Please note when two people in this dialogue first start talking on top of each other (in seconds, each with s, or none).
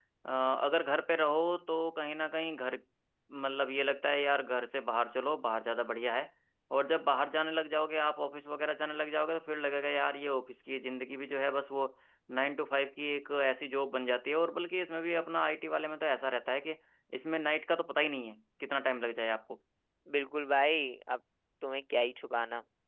none